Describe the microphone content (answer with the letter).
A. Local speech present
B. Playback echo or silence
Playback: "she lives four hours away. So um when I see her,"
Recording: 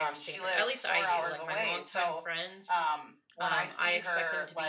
A